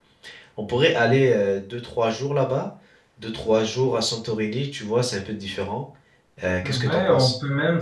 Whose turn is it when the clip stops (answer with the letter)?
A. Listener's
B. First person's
A